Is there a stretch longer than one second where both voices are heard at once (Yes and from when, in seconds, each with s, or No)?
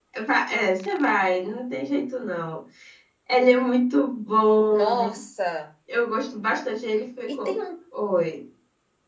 No